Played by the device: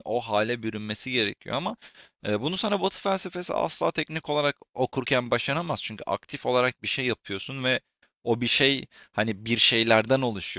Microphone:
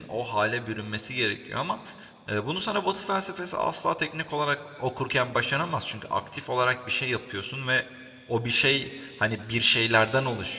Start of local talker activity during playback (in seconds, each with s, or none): none